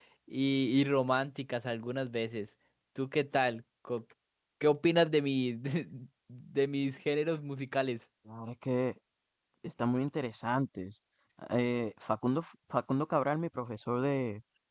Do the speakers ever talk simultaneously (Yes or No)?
No